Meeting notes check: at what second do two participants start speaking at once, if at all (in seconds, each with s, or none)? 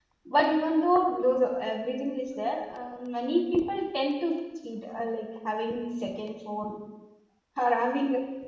none